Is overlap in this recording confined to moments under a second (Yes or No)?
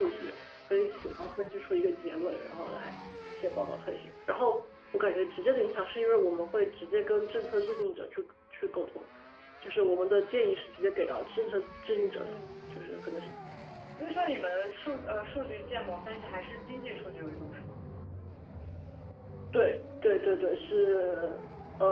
Yes